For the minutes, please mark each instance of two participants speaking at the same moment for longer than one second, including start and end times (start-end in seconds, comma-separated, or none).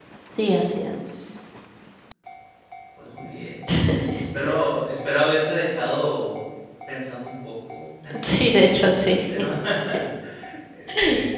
none